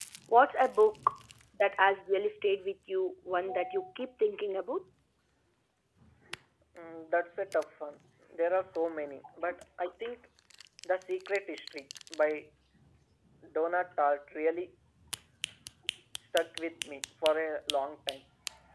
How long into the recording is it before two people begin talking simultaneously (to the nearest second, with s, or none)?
none